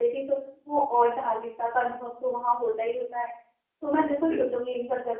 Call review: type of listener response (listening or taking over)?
listening